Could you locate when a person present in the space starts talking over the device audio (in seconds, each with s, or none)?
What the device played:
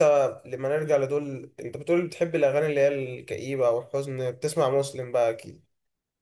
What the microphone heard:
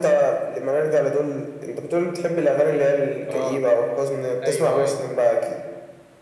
3.3 s